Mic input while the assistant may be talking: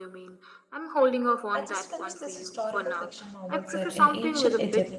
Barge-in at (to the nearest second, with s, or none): 2 s